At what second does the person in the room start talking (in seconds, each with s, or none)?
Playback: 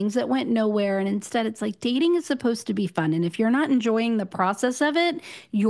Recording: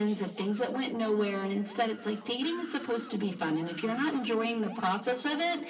none